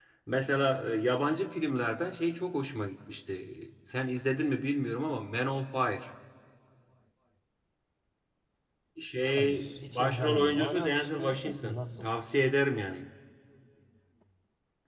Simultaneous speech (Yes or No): Yes